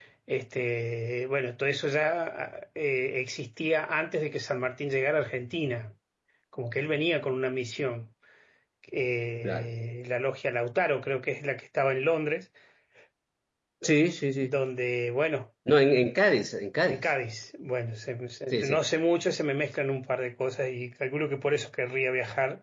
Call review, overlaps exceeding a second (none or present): none